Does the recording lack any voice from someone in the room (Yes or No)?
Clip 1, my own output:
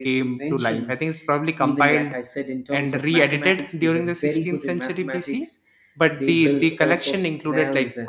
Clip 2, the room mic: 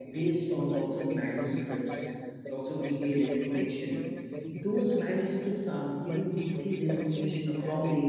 No